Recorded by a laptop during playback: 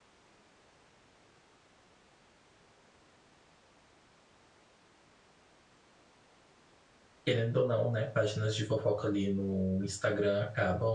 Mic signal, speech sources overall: user only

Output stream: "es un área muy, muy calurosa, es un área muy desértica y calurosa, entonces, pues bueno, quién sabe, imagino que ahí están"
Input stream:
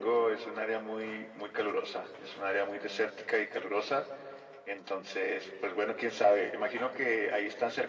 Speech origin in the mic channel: echo only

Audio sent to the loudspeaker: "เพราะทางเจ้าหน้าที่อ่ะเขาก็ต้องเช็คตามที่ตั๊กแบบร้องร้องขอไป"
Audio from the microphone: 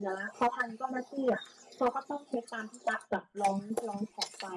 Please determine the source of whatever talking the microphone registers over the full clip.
echo only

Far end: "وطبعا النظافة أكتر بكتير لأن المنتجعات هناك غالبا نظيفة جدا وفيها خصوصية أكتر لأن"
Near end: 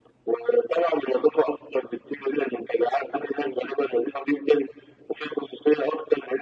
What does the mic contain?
echo only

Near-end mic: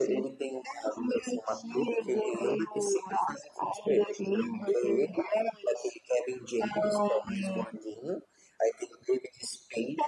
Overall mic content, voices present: echo only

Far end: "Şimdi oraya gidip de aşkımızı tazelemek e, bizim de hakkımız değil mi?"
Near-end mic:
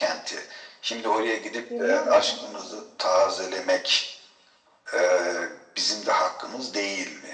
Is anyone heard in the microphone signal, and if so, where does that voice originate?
both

